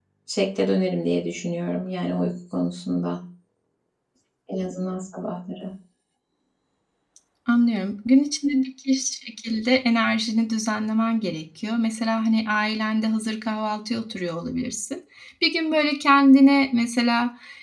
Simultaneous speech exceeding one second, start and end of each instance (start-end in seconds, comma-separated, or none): none